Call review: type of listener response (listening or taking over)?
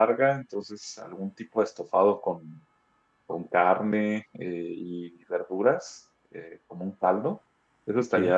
listening